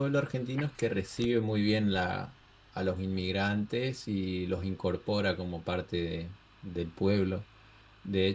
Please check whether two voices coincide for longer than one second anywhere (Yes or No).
No